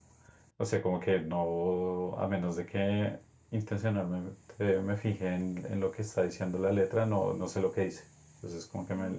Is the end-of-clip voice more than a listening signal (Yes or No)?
Yes